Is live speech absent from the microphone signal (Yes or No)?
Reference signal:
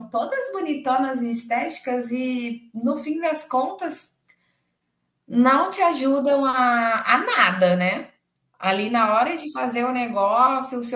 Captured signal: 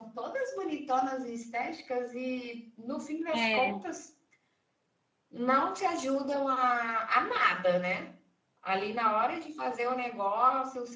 No